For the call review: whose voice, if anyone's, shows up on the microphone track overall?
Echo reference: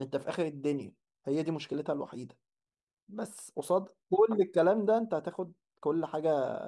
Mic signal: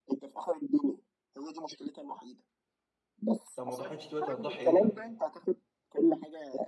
both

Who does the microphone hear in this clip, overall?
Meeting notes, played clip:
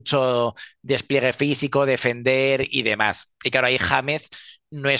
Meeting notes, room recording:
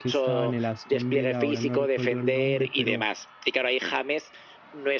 both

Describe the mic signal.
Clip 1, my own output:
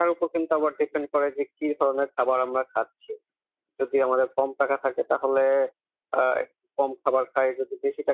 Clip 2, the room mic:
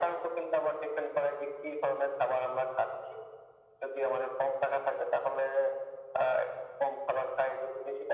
echo only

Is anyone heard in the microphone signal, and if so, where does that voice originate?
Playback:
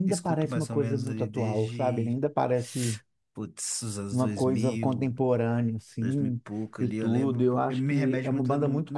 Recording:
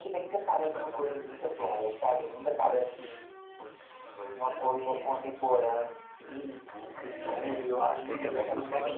both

